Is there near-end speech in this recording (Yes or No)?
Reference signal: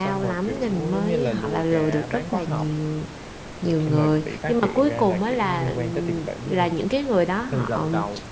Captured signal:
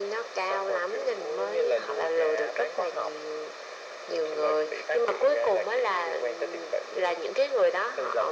No